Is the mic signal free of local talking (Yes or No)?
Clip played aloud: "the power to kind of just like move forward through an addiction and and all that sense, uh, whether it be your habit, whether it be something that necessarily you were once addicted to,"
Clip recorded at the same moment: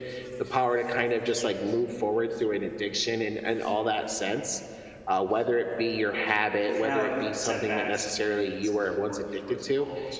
No